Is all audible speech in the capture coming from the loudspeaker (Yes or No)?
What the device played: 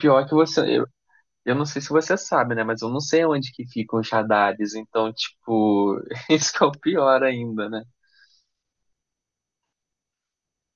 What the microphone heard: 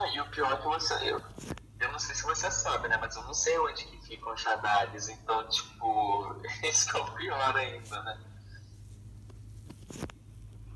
Yes